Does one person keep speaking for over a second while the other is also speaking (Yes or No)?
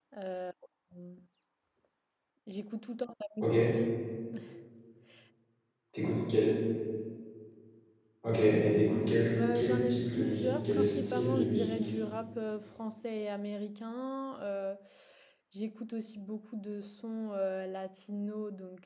Yes